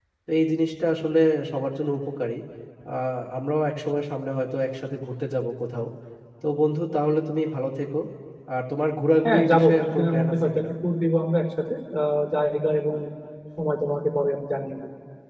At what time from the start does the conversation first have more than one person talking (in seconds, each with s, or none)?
9.2 s